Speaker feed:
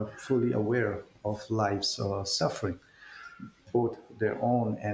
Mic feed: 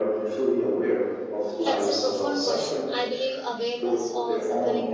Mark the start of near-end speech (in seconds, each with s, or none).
1.6 s